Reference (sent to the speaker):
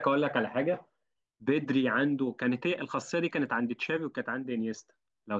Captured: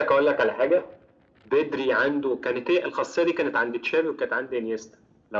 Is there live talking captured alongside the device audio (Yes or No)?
No